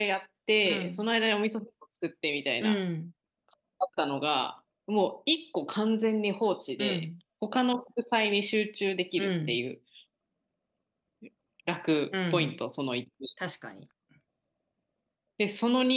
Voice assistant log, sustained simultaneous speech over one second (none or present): none